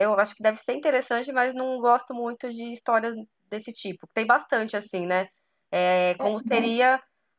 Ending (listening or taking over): listening